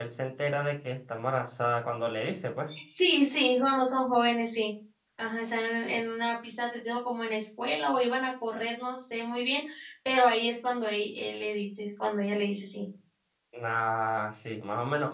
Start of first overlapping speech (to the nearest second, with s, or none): none